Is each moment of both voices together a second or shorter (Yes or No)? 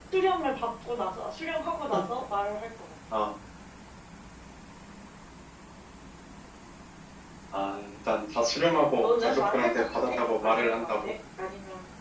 No